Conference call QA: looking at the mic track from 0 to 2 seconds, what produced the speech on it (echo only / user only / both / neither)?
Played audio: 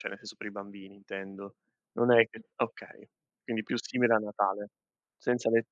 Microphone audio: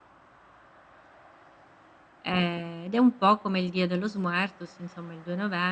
neither